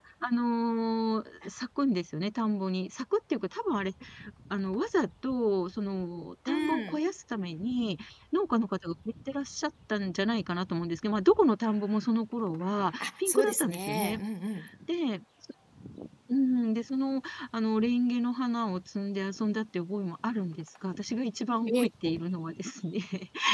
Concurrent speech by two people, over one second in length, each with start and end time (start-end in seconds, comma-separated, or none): 13.0-14.2